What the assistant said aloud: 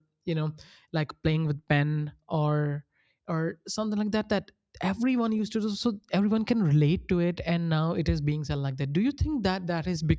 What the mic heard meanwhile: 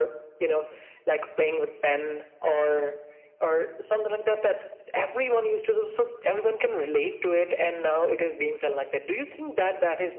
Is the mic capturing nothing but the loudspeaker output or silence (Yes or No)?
Yes